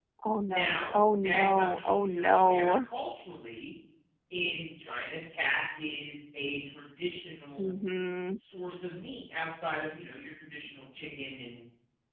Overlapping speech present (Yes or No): Yes